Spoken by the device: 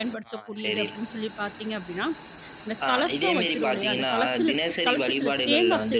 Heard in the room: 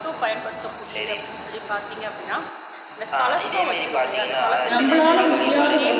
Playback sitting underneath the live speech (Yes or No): Yes